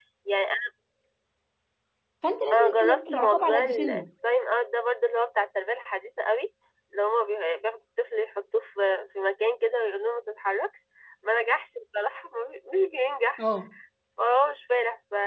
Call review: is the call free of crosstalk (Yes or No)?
No